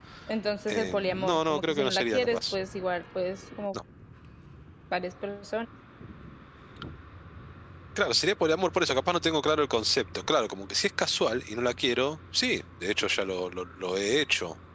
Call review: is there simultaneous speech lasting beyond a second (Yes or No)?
Yes